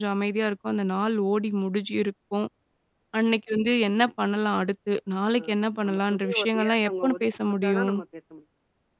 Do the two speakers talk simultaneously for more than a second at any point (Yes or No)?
Yes